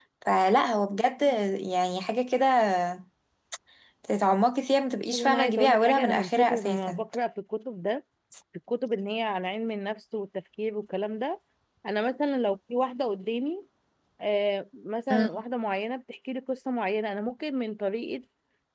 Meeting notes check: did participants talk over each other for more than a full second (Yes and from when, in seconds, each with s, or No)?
Yes, from 5.1 s